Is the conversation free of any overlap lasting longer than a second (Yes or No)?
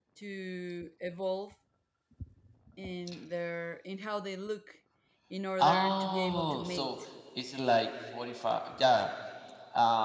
No